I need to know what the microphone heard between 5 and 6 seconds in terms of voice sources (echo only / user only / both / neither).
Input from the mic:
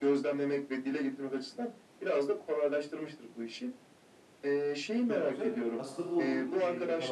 both